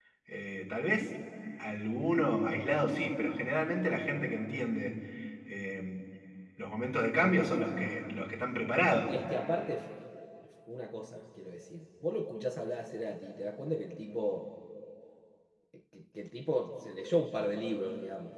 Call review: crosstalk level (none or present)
none